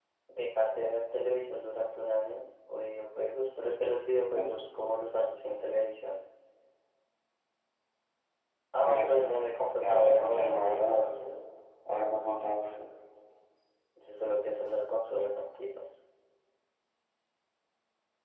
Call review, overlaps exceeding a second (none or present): present